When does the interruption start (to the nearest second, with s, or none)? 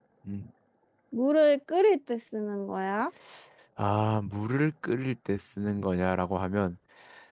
none